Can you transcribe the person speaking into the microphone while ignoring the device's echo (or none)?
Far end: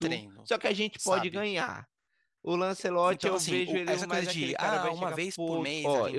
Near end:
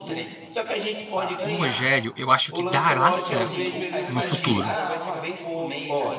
O Rogério, eu acho que dará certo no futuro.